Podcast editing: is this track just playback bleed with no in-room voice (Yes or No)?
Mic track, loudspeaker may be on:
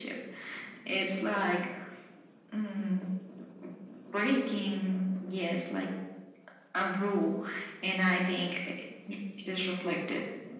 Yes